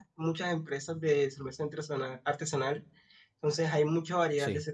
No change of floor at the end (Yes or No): Yes